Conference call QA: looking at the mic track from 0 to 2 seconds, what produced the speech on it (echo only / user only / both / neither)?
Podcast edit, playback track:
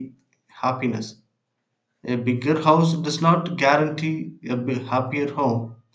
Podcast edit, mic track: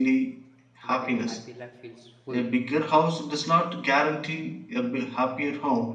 both